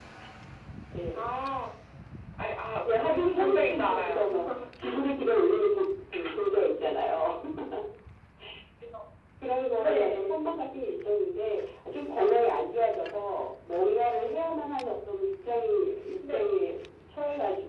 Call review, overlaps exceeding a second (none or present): present